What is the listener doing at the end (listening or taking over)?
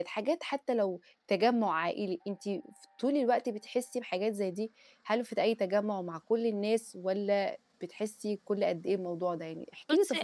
taking over